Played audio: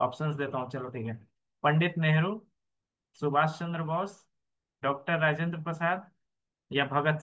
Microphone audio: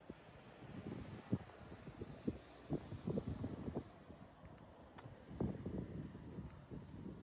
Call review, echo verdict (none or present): none